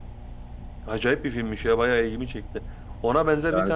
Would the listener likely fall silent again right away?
Yes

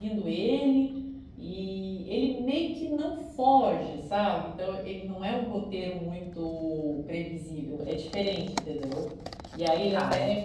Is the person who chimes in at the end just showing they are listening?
Yes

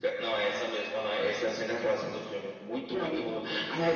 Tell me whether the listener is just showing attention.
Yes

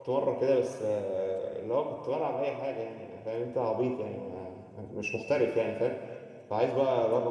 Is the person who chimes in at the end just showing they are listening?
Yes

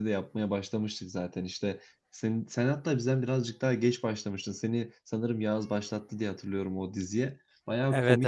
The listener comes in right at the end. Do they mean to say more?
No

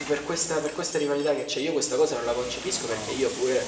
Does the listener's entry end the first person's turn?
No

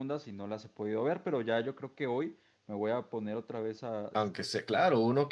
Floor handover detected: Yes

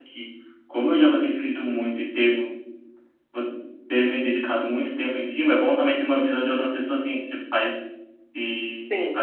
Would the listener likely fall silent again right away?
No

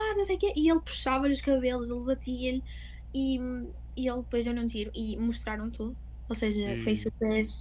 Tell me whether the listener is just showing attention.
Yes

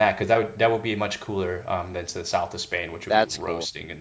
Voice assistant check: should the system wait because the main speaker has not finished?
Yes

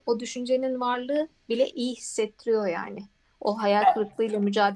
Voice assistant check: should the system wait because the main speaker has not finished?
Yes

